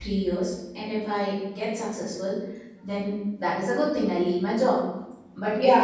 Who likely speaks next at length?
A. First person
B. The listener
A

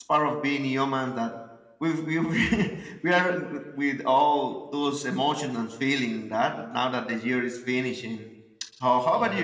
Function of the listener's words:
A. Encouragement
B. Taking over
B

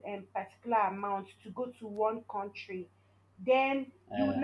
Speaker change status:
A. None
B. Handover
A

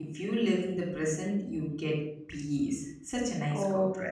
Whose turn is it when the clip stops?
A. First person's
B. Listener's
B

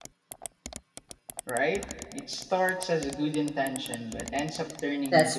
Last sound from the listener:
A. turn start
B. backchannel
A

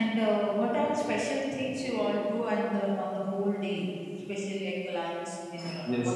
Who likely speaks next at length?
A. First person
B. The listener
B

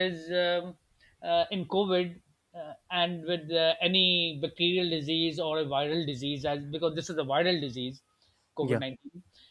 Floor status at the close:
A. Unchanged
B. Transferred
A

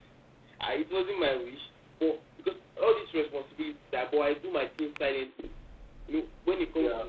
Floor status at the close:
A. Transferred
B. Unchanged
B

